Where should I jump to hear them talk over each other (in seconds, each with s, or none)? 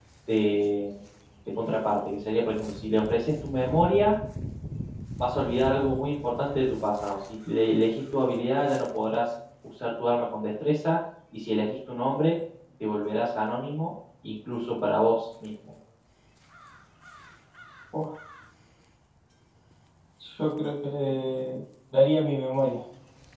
none